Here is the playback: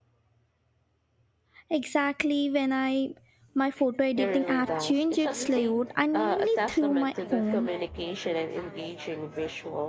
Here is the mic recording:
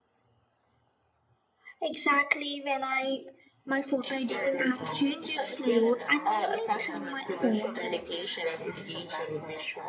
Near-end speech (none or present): present